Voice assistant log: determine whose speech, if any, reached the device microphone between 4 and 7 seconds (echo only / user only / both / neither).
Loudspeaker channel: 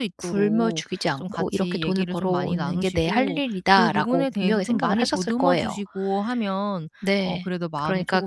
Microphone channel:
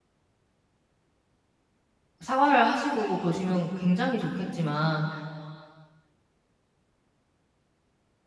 user only